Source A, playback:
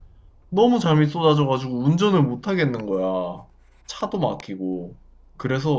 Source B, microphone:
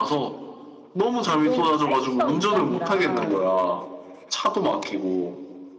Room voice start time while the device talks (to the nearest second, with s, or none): 1 s